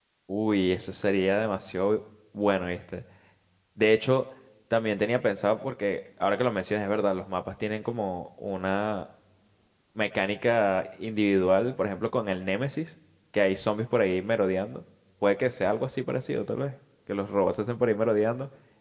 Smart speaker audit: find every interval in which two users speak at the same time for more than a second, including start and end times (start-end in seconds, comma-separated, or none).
none